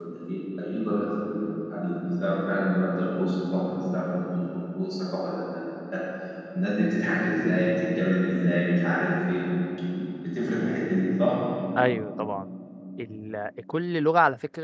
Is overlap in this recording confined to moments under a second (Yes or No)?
Yes